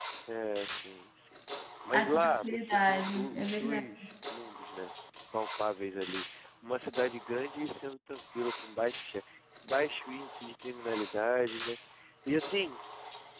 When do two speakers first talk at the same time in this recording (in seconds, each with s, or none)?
1.9 s